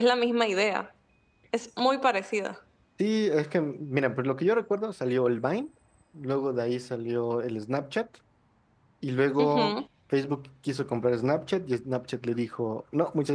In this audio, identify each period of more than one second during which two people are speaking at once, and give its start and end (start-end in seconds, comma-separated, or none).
none